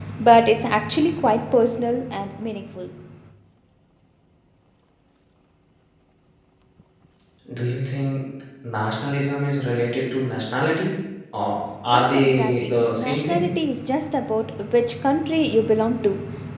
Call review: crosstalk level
present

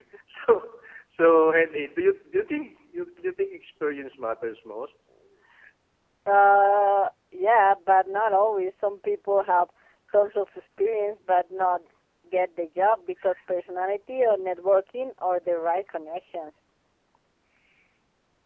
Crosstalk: none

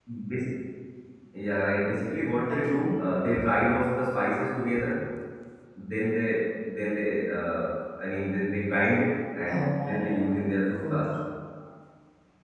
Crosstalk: present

